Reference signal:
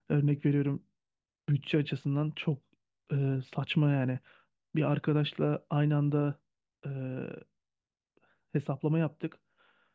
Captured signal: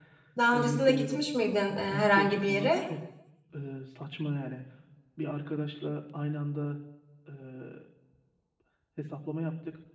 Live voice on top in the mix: Yes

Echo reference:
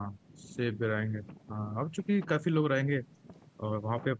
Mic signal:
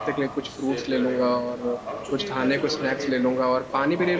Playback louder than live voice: No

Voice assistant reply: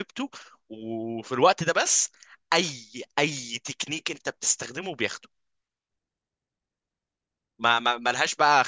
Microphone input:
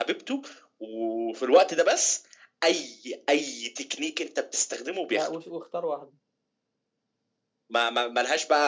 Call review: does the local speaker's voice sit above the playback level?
No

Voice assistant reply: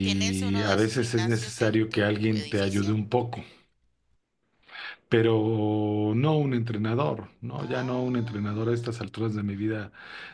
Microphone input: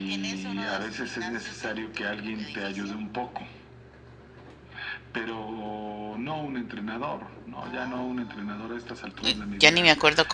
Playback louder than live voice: No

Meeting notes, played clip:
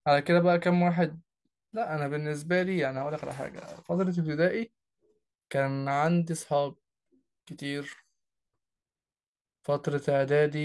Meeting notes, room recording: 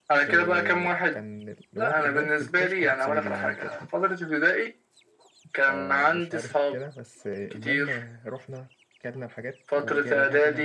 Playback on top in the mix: Yes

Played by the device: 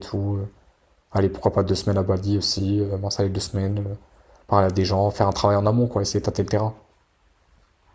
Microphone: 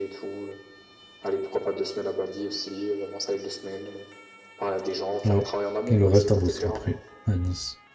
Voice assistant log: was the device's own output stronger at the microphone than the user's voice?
No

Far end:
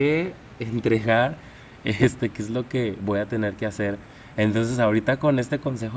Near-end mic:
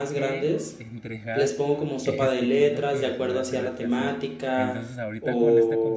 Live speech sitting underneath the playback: No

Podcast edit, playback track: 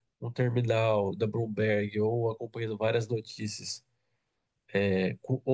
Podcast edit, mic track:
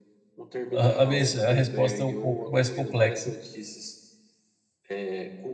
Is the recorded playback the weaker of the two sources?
Yes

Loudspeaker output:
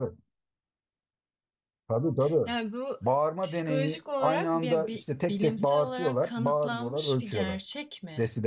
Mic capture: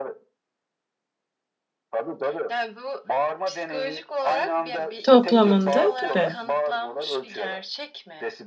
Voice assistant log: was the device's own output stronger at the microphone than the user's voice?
No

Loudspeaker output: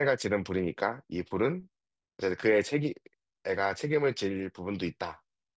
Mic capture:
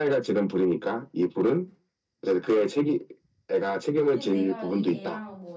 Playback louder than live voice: Yes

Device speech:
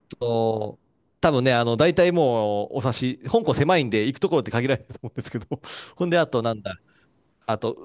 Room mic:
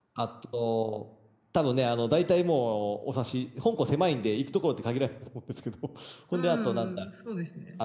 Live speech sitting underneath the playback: Yes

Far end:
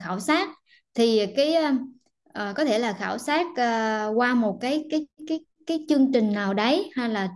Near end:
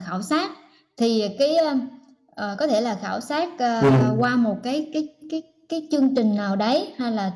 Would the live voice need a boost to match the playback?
No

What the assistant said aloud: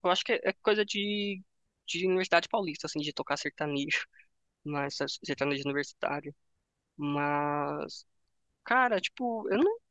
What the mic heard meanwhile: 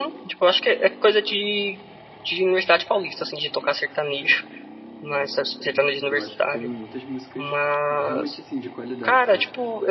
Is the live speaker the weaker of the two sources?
Yes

